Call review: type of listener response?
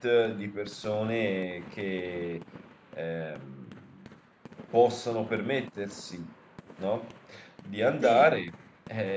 listening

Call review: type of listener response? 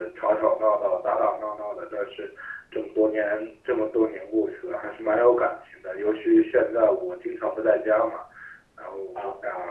listening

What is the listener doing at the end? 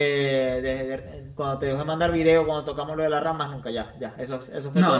taking over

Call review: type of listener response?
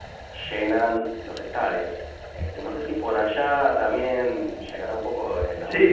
taking over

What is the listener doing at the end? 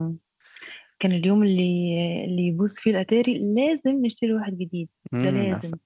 taking over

